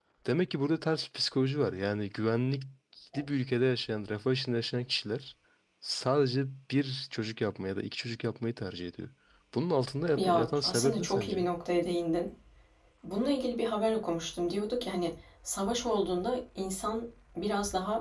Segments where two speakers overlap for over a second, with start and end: 10.2-11.5

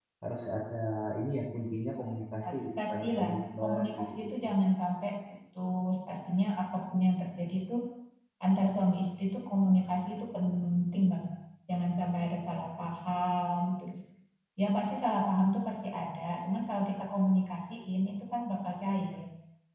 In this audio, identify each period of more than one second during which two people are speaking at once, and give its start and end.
2.9-4.5

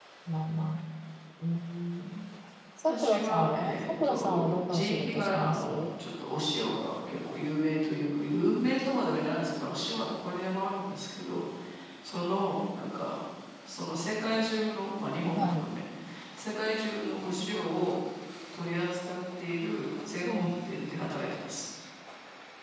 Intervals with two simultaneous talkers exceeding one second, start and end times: 2.8-5.7

